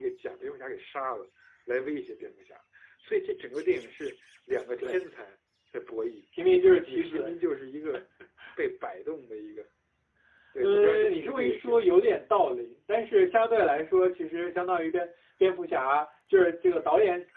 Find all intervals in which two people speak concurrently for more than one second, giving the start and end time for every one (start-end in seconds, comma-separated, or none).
10.6-12.0